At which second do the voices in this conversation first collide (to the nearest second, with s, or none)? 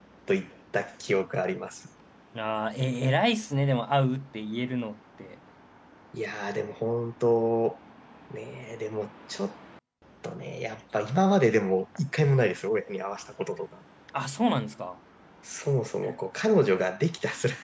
none